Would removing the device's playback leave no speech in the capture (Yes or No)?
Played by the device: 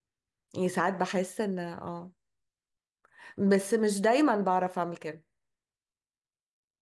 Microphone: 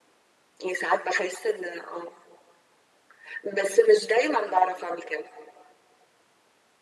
Yes